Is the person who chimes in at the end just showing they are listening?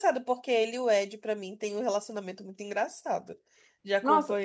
No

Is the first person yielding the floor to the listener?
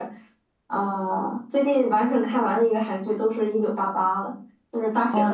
Yes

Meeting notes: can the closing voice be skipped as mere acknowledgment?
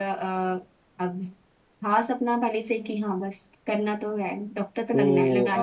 No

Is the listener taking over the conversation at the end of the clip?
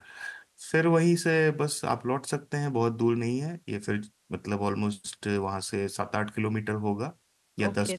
Yes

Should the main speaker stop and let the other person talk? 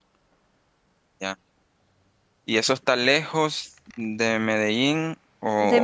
Yes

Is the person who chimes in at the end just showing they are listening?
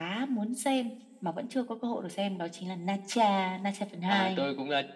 No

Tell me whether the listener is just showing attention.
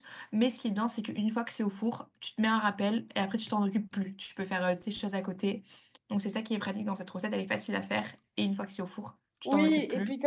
No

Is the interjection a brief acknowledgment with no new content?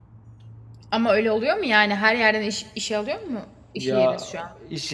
No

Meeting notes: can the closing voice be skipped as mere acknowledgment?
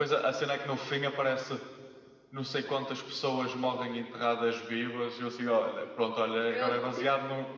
Yes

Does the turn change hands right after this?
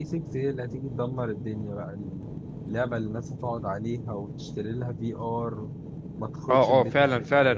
Yes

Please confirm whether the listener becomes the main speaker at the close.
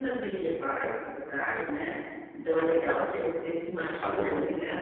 No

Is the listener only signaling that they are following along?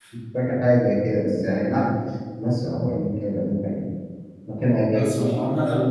No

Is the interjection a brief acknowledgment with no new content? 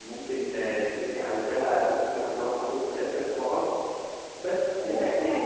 No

